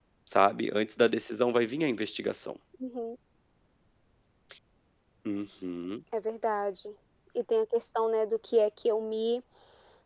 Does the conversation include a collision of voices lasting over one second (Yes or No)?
No